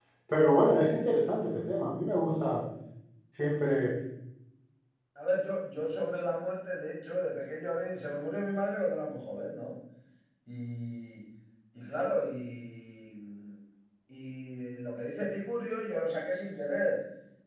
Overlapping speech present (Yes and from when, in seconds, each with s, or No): No